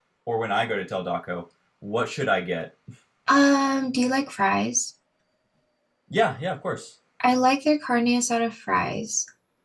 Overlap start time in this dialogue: none

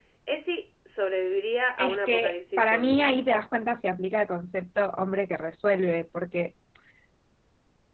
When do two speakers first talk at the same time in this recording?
1.8 s

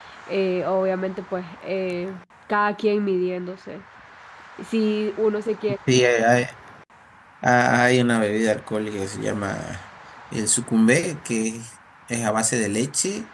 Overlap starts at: none

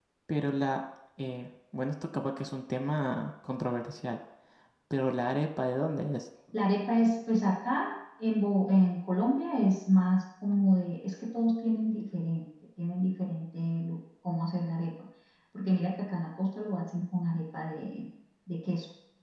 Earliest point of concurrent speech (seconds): none

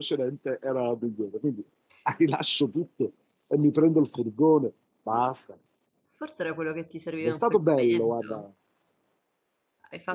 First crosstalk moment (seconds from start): 7.2 s

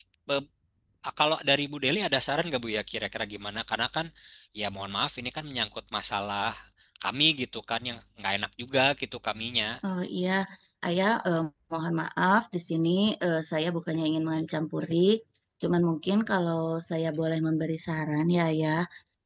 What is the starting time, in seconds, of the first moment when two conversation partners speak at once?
none

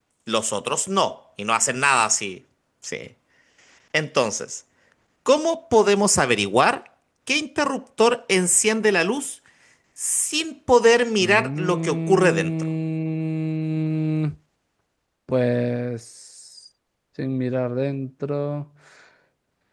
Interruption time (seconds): 11.2 s

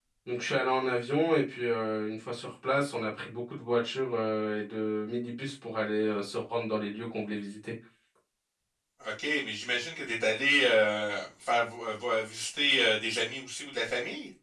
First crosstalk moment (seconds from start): none

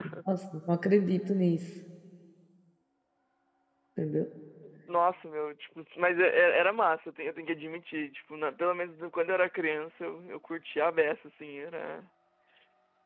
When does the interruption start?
none

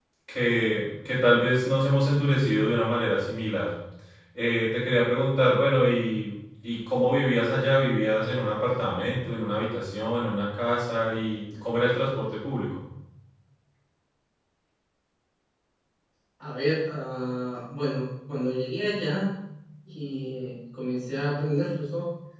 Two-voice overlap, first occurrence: none

